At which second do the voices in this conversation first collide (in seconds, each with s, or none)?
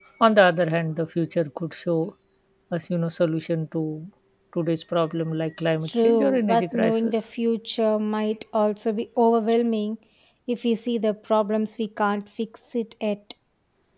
5.9 s